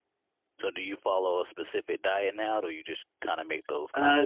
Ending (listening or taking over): taking over